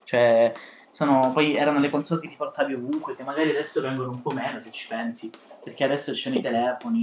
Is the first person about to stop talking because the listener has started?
No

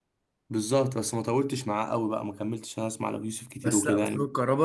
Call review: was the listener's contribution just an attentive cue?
No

